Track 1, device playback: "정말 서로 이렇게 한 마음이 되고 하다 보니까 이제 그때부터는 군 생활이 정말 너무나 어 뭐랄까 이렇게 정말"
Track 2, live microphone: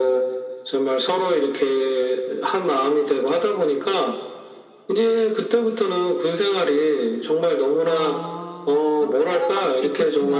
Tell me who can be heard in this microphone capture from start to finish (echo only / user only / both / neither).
both